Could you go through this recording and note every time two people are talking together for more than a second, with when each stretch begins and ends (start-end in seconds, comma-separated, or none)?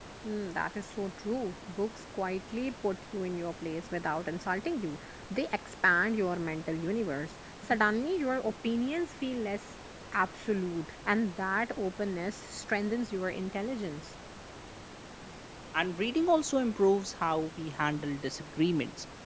none